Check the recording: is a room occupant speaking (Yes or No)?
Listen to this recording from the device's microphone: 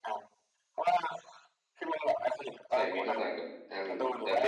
Yes